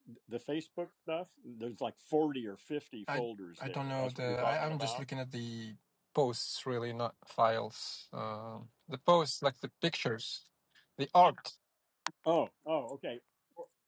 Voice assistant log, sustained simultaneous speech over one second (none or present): present